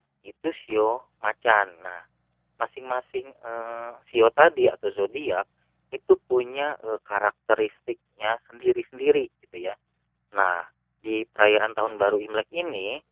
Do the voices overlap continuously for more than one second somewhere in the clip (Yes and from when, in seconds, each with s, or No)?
No